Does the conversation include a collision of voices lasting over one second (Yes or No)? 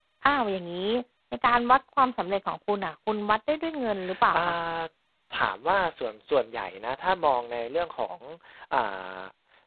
No